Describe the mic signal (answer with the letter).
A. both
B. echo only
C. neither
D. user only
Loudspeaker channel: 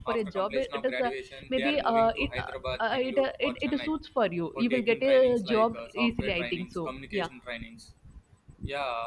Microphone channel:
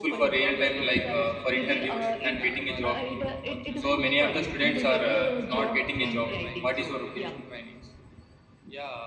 A